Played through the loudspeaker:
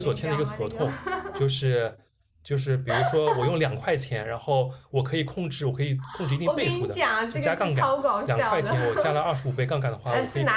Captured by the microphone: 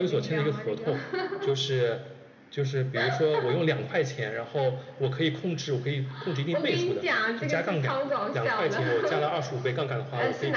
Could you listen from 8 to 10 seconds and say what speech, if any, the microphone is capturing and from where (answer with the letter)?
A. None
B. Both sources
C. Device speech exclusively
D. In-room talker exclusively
C